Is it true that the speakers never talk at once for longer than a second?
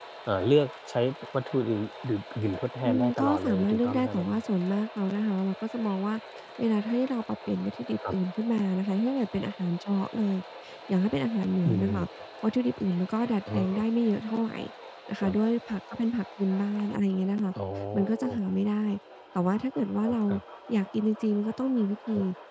No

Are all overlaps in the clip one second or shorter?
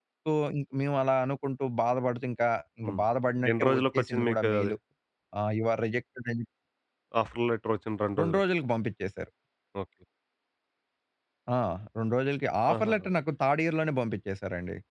No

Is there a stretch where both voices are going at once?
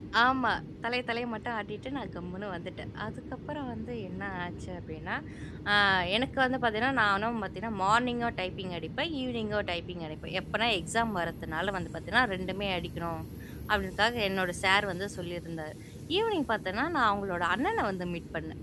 No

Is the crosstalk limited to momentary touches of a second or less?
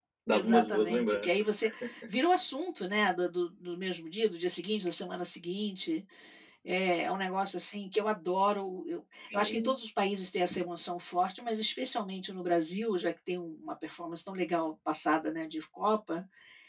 No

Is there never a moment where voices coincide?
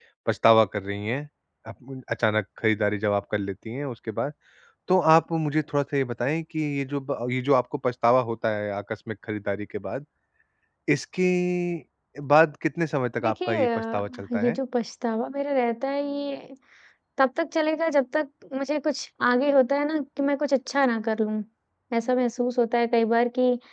No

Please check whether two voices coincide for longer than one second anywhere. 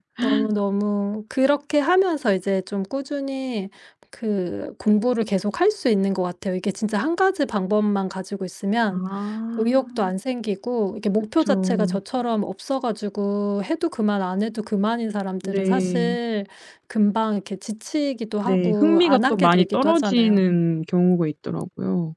Yes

